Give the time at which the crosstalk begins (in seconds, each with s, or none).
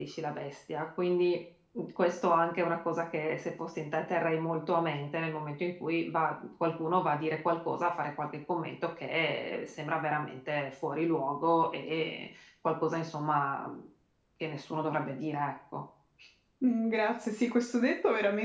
none